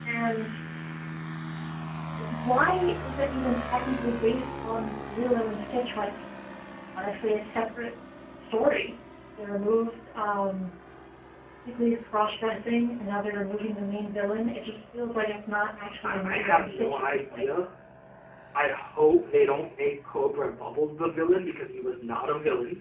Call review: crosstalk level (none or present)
present